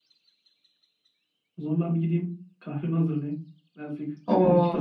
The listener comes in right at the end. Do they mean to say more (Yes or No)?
Yes